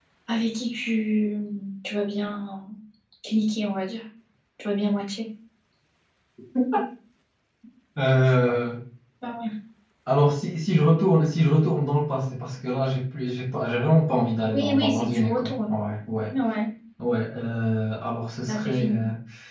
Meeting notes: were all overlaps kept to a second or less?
No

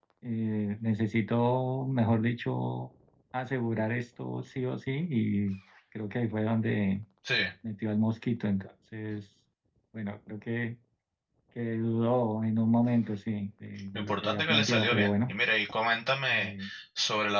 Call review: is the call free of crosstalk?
No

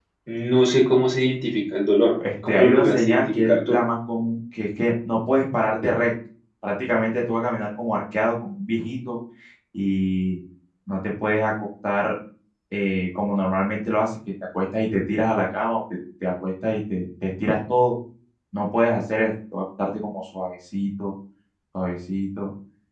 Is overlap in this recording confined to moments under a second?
No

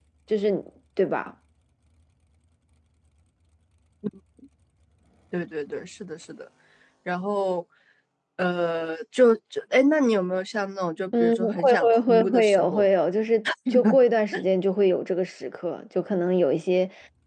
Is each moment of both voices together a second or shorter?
No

